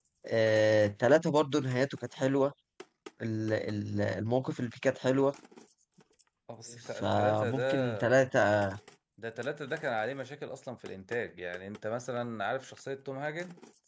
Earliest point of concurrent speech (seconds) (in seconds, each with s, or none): 7.0 s